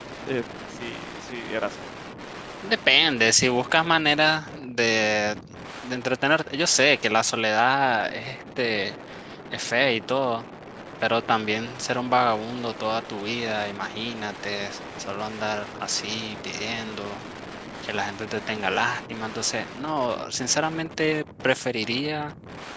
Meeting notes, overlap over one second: none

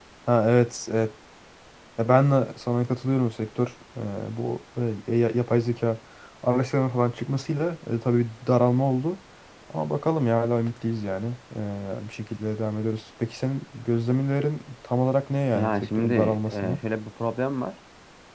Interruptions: present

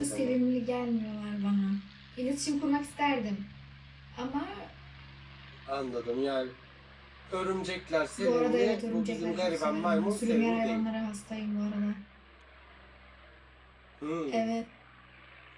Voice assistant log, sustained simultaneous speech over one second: present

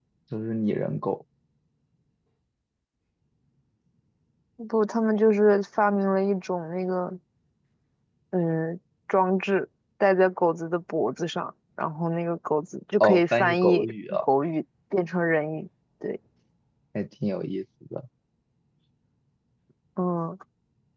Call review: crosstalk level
present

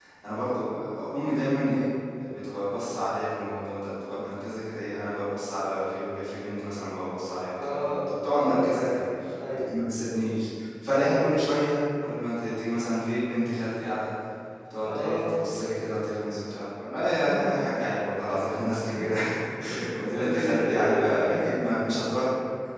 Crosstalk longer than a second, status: present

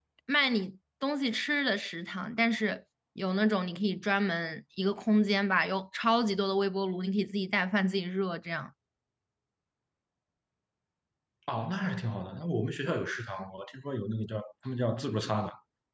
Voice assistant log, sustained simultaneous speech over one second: none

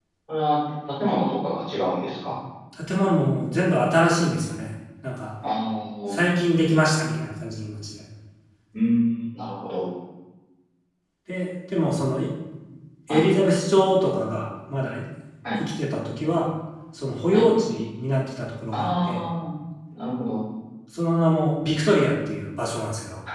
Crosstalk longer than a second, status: none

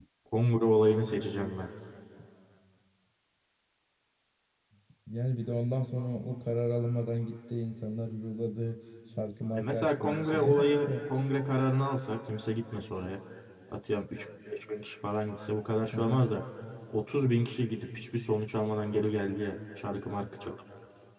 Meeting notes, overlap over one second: present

